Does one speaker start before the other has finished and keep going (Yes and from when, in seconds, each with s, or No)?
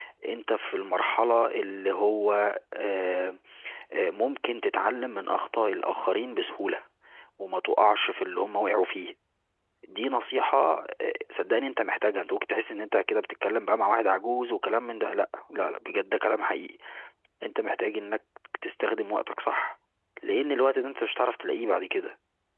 No